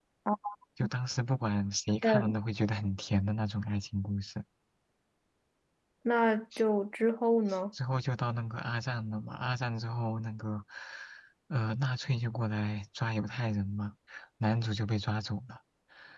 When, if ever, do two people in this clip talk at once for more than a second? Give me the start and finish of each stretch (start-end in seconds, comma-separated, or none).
none